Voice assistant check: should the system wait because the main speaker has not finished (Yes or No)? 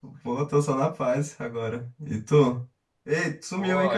No